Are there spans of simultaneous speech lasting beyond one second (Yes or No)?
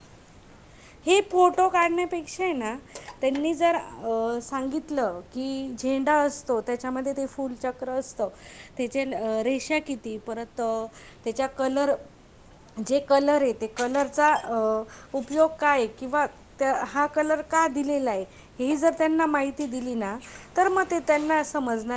No